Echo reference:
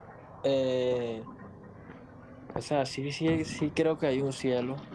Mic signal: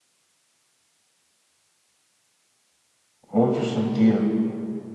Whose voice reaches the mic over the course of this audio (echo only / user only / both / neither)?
user only